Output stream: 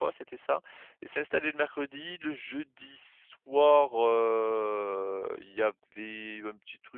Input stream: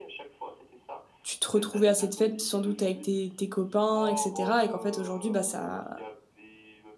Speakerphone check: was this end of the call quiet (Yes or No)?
No